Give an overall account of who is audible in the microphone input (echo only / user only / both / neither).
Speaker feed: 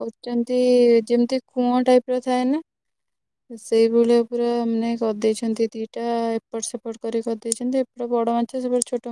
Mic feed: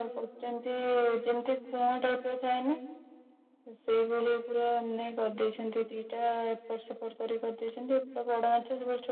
echo only